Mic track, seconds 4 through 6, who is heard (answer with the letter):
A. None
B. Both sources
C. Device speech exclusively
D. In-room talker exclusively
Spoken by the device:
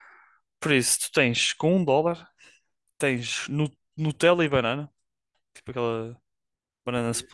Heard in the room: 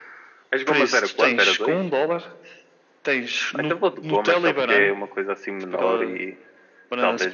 B